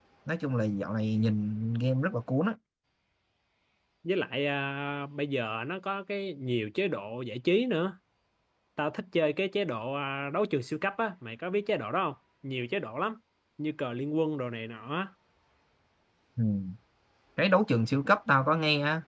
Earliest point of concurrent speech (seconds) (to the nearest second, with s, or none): none